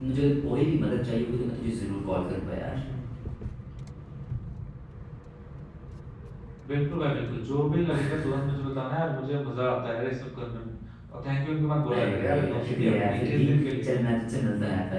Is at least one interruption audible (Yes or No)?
Yes